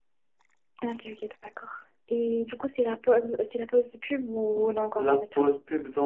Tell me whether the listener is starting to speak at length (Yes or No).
Yes